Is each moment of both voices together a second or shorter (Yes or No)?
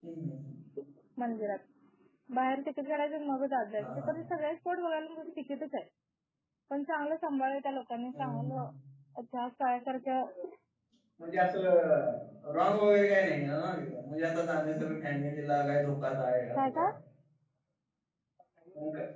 Yes